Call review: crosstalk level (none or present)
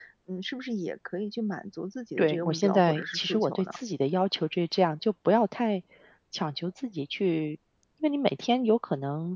present